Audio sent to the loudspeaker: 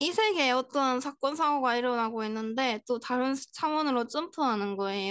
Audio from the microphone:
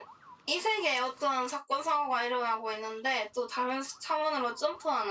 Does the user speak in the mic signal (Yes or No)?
No